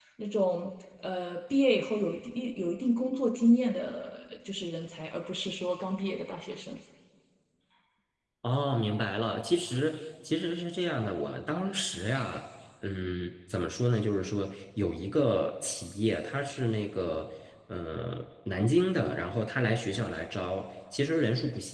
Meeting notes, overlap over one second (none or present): none